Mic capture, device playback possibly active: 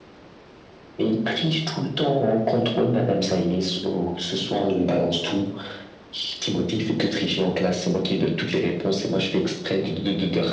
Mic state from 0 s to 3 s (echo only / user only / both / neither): echo only